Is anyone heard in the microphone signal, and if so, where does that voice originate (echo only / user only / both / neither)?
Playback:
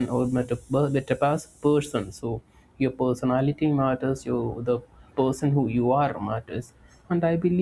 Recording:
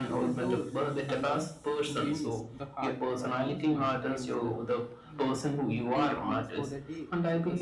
both